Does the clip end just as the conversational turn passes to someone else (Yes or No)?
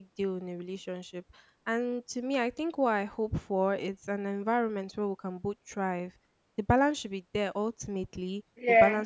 No